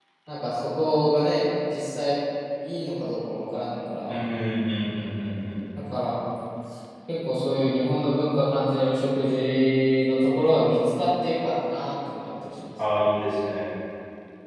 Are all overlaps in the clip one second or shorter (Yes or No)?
Yes